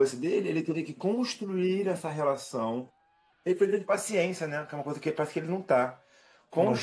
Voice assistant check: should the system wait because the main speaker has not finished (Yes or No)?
Yes